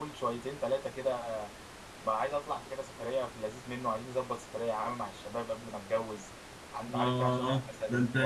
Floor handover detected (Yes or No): Yes